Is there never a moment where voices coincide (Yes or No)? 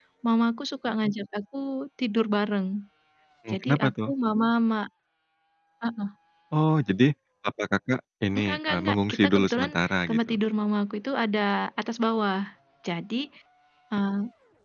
No